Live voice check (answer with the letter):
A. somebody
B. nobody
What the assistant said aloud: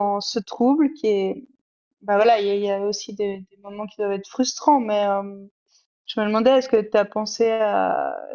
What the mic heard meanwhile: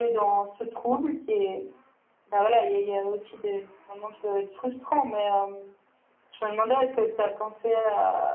B